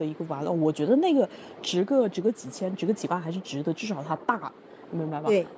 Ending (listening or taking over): listening